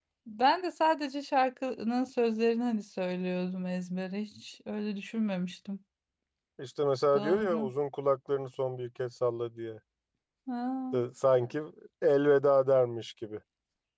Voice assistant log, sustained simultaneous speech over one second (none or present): none